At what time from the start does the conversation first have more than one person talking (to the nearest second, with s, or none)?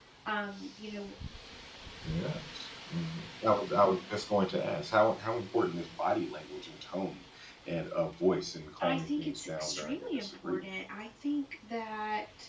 9 s